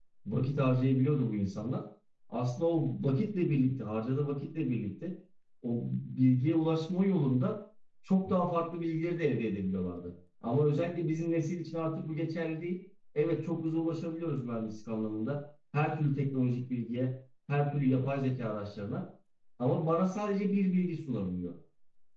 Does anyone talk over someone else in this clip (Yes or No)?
No